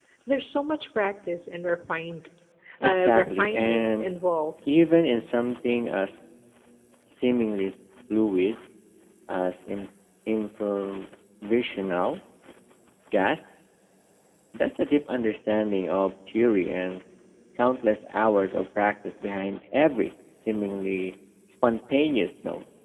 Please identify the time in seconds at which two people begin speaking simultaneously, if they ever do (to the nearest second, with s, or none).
3 s